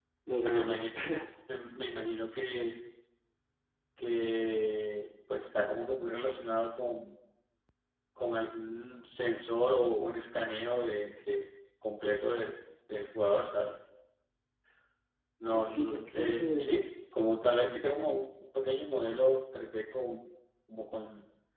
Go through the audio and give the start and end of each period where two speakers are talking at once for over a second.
15.5-16.8

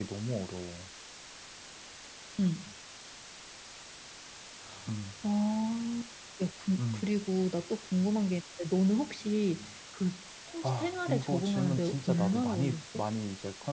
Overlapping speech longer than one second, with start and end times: 10.6-13.0

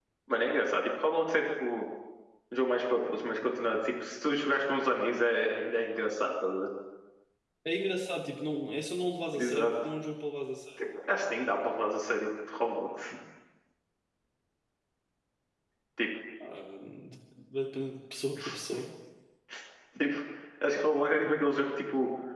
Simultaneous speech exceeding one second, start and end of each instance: none

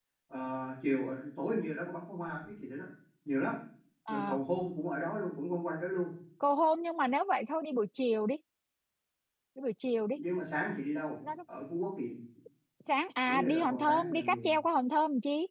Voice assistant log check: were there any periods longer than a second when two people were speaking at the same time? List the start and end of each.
13.3-14.5

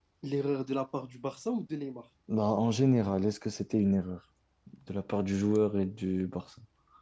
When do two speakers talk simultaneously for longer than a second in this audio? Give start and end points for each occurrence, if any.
none

